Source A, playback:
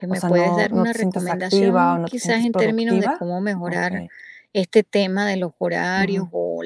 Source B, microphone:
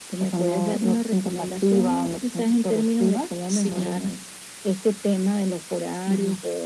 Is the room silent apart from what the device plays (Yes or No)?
No